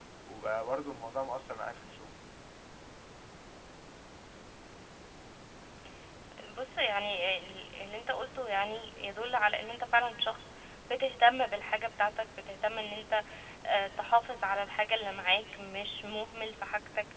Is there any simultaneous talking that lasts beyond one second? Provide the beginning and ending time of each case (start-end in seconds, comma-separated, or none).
none